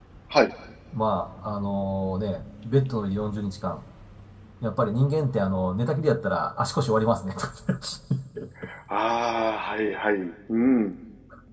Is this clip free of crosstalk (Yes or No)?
Yes